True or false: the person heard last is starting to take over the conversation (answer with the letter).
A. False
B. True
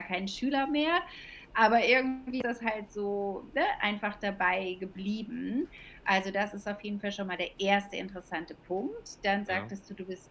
A